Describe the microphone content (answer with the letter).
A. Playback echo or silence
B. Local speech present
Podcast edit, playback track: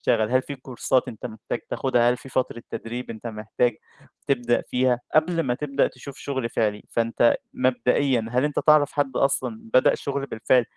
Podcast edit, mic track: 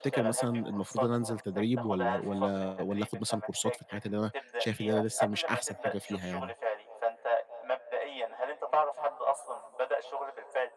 B